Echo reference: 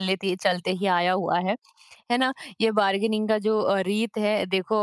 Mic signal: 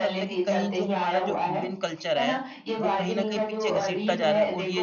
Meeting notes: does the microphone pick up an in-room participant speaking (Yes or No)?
Yes